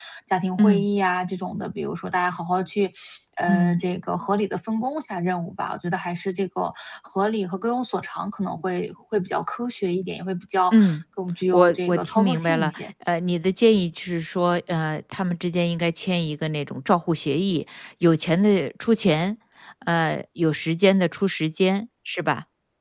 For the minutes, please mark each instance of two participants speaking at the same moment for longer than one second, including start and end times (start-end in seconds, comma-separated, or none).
11.5-12.8